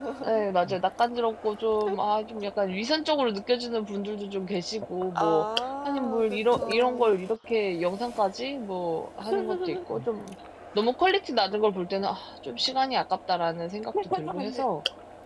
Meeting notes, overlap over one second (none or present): present